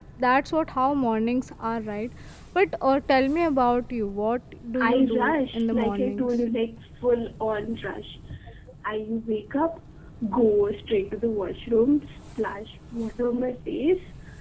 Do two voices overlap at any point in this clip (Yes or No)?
Yes